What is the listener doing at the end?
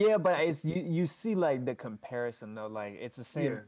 listening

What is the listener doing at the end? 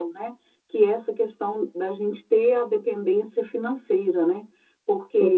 listening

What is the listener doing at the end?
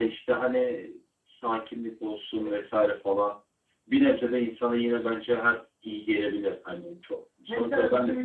taking over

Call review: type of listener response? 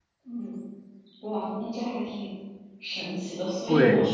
listening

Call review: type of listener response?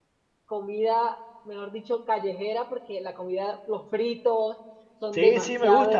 taking over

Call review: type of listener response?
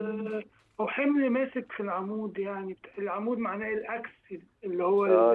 taking over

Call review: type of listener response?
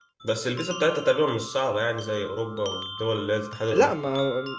taking over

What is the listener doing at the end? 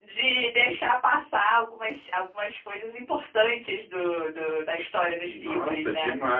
taking over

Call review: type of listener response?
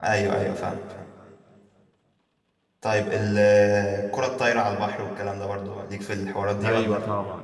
taking over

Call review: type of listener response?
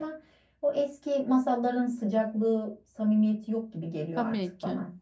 taking over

